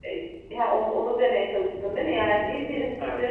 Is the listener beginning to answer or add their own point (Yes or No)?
No